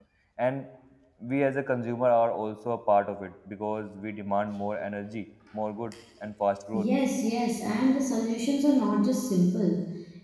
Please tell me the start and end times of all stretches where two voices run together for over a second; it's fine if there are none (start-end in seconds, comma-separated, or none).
none